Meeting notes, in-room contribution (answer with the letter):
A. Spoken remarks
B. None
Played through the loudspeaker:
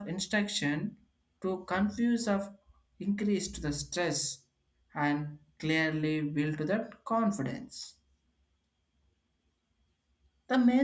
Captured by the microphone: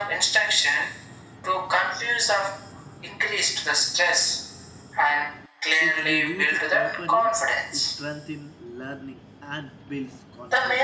A